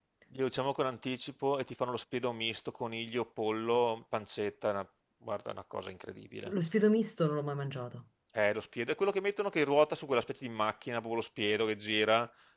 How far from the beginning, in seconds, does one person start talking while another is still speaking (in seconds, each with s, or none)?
none